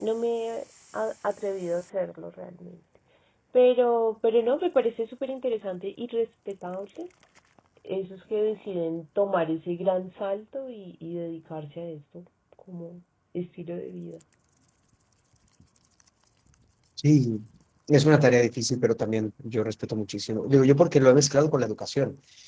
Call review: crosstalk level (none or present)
none